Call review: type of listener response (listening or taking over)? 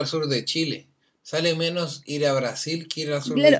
taking over